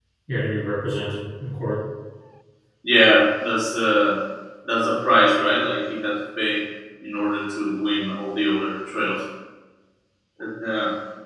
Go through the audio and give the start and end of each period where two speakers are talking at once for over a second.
none

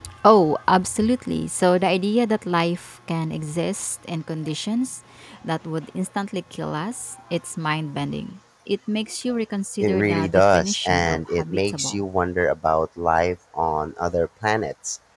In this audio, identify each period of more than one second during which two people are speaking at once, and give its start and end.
9.8-12.0

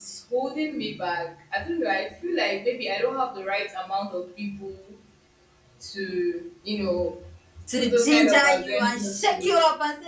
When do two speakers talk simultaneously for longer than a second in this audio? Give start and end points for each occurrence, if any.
7.8-9.6

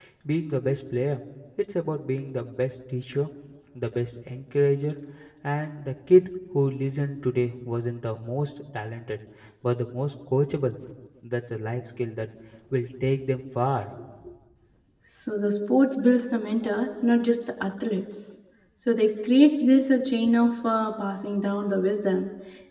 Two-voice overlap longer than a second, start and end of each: none

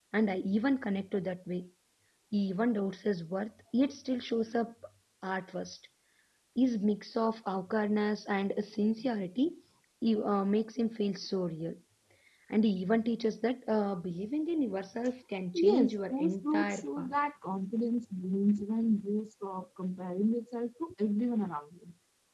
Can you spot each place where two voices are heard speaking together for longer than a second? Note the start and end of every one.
15.6-17.1

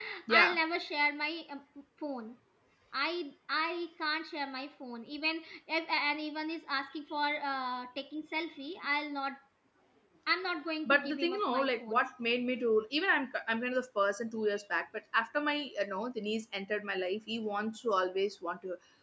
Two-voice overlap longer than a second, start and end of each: 10.8-12.1

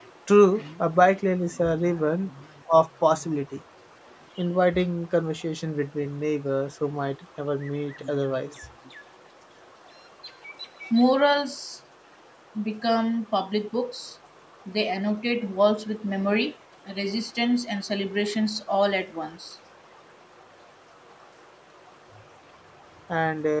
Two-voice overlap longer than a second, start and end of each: none

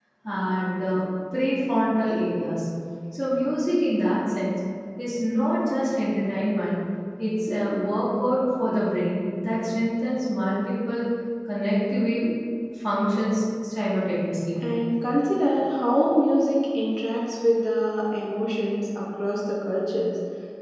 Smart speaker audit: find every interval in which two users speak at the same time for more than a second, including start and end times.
none

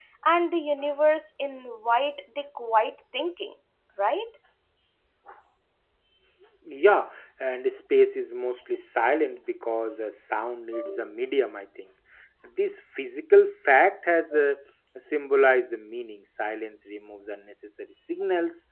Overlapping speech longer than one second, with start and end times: none

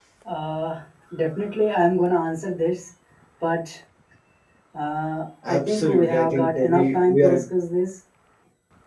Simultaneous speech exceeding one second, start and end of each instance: 5.5-7.4

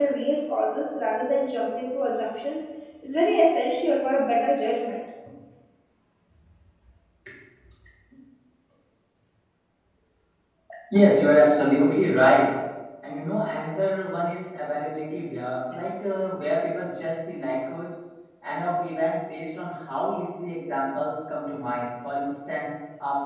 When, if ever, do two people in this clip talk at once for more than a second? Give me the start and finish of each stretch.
none

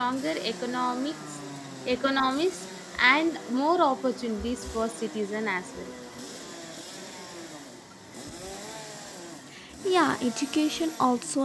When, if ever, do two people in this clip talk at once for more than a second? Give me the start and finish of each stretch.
none

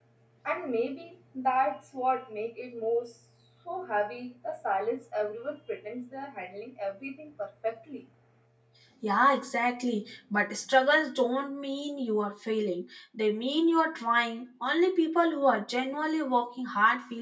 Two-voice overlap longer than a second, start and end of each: none

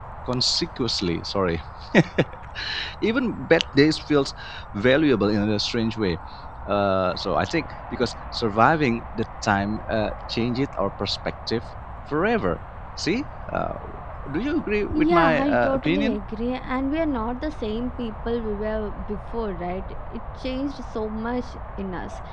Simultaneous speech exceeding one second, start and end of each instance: 14.9-16.2

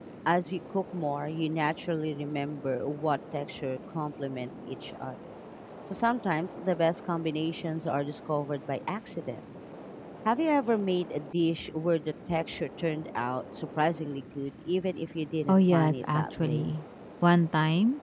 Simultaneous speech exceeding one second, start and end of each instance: 15.5-16.7

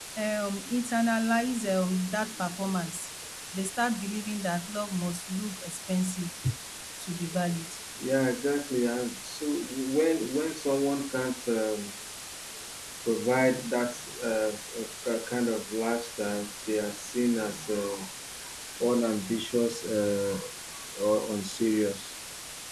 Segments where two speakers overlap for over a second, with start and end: none

